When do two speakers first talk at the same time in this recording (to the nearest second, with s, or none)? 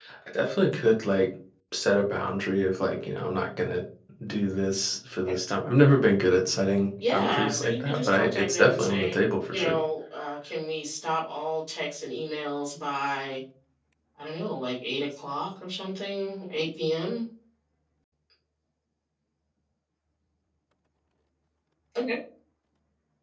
7 s